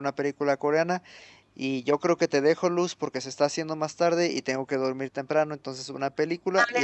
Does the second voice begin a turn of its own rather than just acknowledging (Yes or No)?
Yes